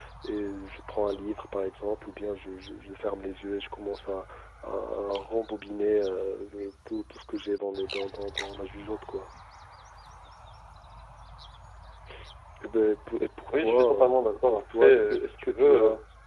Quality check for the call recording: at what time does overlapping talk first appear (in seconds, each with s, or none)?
13.5 s